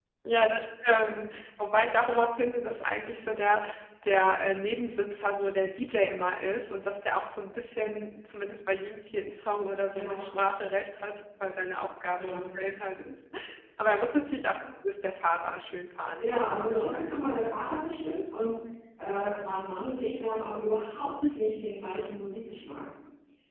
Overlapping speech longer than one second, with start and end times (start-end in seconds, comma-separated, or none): 16.2-17.8